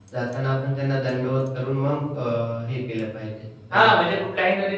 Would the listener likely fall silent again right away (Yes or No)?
No